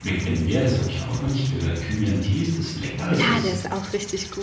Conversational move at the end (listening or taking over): taking over